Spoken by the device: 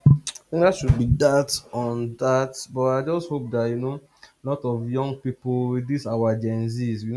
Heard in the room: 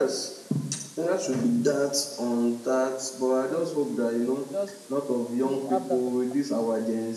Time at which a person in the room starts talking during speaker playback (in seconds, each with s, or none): 3.4 s